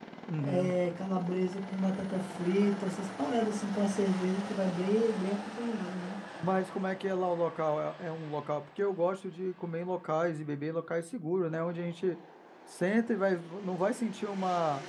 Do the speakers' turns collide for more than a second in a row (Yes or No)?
No